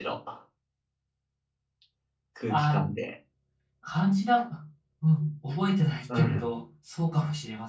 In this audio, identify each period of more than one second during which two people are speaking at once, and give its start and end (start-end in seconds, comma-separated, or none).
none